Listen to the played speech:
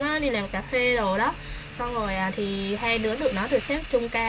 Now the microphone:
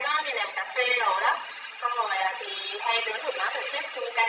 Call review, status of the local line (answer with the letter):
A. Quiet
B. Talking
A